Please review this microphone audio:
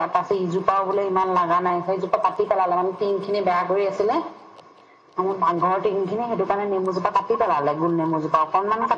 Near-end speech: none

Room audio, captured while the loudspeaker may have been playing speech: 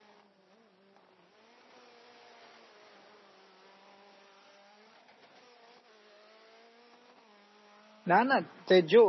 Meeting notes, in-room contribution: present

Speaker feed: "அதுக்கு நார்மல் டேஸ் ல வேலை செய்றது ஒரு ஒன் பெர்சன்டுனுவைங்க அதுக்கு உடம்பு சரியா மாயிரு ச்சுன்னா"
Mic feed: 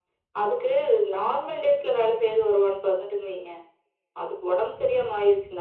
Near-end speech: none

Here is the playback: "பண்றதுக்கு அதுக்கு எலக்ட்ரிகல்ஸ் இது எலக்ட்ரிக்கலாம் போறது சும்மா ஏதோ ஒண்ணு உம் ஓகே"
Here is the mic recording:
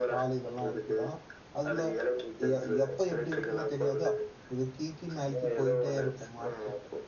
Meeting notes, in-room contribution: present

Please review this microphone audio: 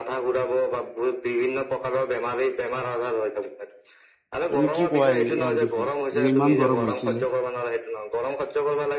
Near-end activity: present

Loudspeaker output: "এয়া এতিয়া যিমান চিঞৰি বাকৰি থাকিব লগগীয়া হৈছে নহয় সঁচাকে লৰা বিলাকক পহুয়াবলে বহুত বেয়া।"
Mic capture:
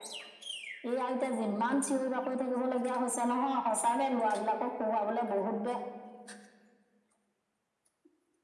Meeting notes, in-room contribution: none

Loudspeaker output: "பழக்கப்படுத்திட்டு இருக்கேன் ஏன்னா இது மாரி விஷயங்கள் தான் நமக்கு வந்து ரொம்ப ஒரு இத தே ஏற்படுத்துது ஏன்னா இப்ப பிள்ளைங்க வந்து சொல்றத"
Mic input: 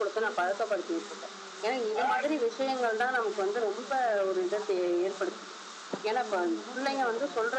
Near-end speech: present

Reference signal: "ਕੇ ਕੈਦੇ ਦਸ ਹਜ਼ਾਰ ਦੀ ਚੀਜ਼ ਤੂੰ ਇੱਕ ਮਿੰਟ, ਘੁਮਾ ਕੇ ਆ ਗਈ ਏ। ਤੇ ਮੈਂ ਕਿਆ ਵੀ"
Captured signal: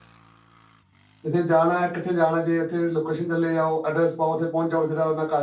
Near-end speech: present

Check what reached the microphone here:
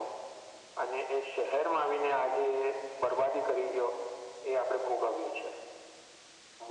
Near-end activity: none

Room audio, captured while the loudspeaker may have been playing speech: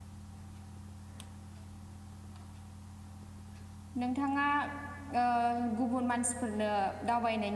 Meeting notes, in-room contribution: present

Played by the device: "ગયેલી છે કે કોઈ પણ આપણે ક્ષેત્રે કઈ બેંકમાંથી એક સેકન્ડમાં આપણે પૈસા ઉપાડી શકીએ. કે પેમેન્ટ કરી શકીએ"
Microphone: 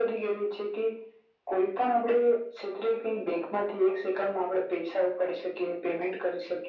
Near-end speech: none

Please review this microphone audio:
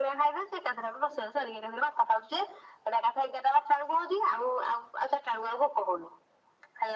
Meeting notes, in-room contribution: none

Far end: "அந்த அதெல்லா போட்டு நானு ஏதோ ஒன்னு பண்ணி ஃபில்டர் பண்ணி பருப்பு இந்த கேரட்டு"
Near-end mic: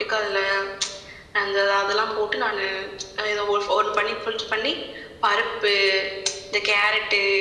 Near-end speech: none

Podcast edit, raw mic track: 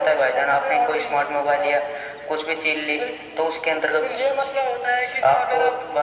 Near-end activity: none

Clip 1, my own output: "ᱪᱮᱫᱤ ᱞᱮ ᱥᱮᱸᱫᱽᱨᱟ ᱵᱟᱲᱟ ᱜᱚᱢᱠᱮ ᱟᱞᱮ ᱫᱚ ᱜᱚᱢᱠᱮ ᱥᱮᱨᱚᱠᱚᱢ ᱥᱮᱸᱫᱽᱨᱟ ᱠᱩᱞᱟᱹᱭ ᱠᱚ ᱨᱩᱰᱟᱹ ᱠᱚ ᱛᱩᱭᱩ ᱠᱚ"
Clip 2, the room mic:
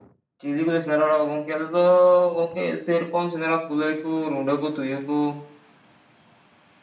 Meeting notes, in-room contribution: none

